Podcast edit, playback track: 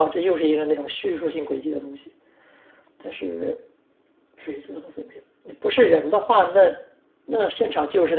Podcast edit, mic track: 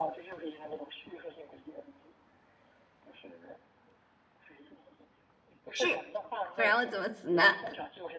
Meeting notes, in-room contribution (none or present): present